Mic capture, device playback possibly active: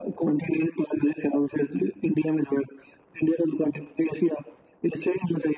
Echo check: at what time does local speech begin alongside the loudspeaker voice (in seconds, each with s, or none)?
none